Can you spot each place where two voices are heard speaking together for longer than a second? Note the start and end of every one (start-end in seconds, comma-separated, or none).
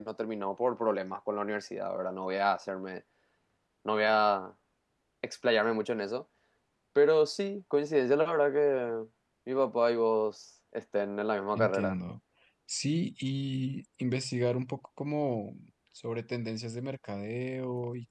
none